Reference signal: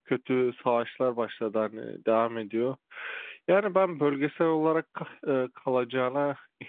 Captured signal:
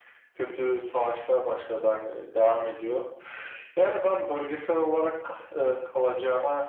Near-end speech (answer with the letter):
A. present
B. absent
B